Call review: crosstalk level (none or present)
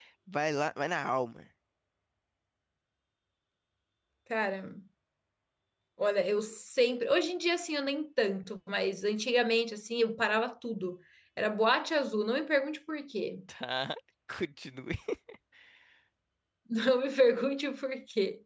none